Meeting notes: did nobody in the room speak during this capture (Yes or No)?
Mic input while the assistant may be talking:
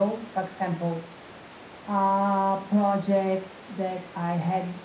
Yes